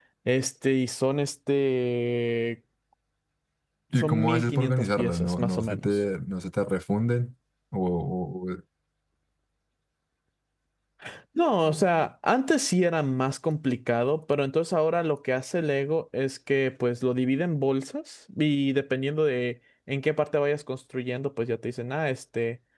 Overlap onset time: 4.0 s

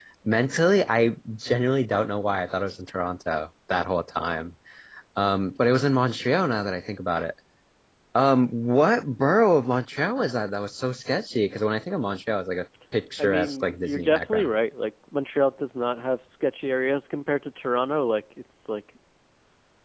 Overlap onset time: 13.2 s

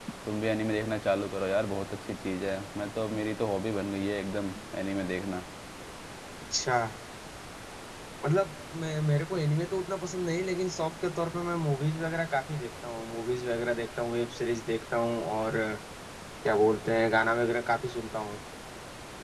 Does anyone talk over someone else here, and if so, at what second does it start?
none

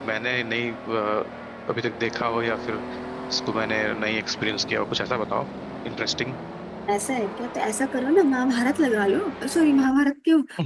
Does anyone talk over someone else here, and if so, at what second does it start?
none

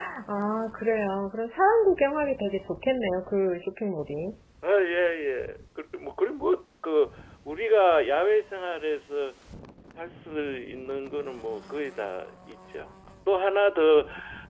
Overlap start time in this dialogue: none

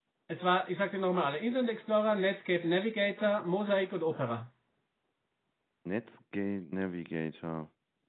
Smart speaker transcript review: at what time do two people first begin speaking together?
none

